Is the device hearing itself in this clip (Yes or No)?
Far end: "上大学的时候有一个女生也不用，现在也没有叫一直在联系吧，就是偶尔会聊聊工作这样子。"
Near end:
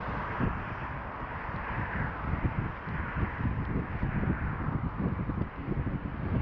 No